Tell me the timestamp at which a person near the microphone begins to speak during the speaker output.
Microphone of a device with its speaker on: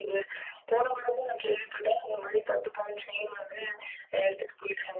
none

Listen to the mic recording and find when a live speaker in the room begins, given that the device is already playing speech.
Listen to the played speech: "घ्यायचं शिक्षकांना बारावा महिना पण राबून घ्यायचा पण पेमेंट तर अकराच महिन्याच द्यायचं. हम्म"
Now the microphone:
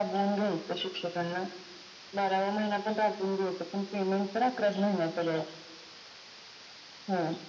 none

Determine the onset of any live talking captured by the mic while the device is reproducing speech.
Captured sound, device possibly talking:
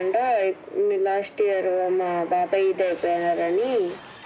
none

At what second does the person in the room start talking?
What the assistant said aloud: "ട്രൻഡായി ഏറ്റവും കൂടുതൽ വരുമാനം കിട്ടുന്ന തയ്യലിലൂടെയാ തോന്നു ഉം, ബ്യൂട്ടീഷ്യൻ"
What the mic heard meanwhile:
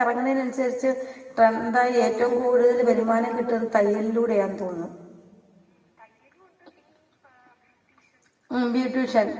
none

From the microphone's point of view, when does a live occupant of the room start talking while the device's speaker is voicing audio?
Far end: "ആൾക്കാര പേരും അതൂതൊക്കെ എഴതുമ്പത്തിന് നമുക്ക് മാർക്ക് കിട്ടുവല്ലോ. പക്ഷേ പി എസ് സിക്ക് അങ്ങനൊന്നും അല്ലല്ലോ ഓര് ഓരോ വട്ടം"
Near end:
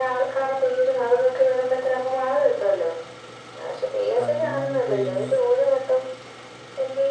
4.2 s

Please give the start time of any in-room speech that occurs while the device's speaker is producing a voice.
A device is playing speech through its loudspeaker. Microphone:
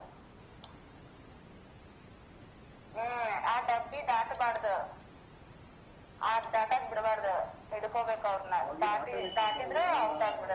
8.6 s

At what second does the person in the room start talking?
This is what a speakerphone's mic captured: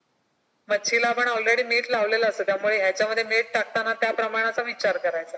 none

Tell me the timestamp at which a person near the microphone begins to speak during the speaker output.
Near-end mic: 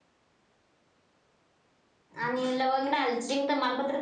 2.2 s

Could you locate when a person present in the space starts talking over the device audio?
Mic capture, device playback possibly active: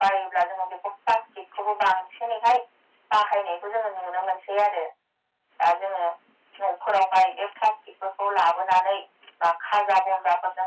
none

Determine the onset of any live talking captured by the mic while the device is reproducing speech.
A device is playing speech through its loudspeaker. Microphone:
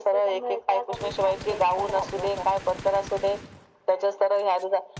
none

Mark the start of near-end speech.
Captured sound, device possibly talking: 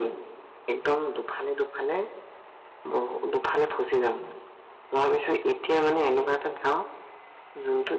none

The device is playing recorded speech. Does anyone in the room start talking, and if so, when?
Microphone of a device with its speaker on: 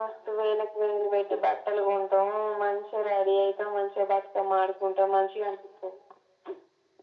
none

